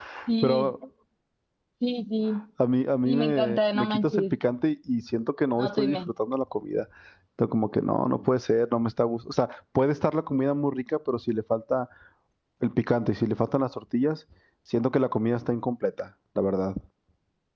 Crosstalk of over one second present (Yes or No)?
Yes